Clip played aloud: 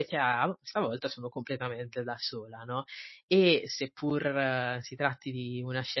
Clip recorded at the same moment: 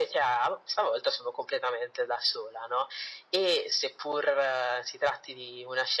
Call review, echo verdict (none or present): present